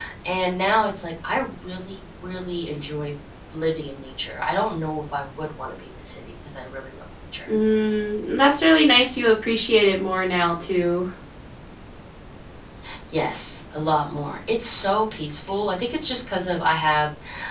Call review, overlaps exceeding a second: none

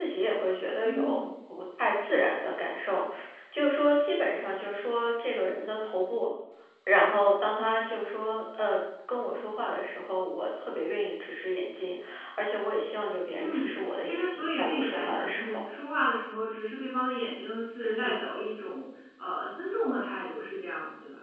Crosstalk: present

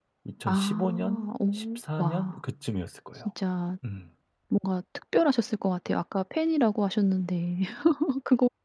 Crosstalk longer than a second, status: present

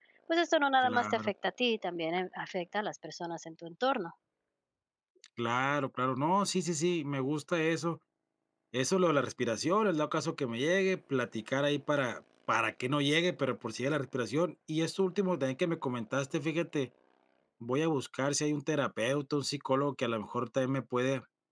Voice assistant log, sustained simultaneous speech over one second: none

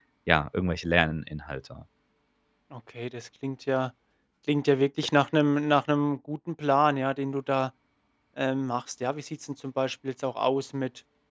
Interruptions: none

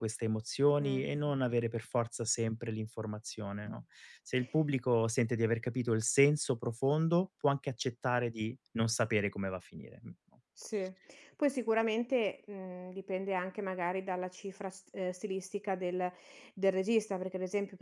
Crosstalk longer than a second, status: none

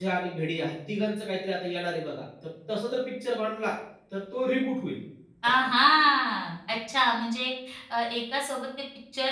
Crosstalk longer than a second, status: none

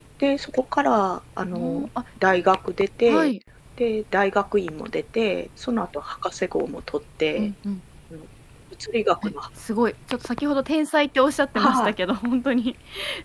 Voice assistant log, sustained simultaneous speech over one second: none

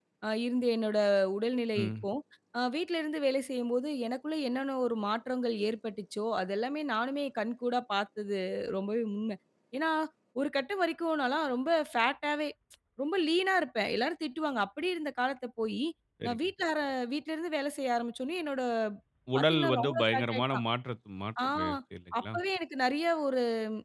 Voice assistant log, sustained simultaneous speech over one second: present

